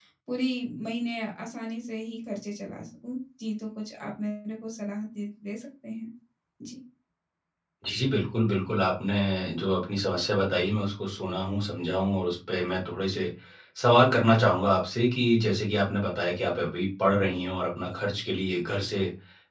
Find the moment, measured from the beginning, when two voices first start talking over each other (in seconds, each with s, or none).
none